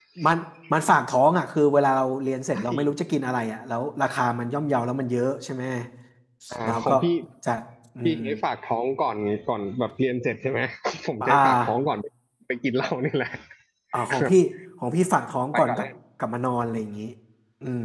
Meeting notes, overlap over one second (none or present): none